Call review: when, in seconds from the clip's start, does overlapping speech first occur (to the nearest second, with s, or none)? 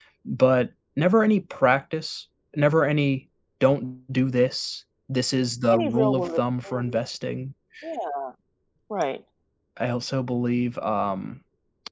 6 s